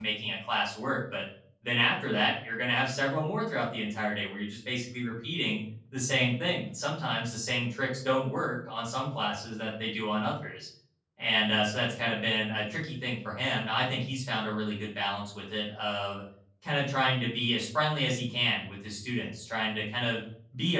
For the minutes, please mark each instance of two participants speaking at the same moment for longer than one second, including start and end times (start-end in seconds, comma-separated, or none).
none